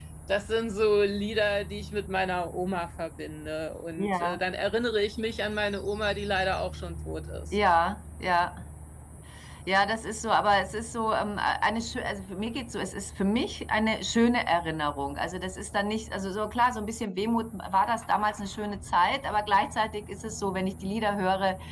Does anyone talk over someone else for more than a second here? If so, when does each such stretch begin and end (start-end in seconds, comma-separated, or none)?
none